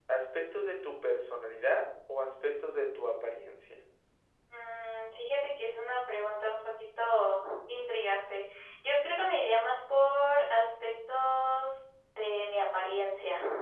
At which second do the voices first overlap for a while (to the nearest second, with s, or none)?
none